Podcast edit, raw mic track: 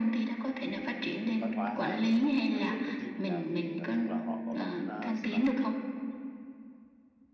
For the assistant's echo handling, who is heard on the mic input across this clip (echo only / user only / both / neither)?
both